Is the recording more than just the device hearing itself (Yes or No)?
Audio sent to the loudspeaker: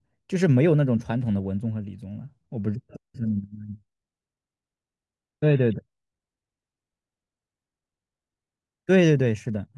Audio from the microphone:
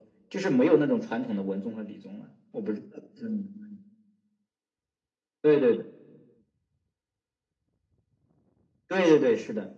No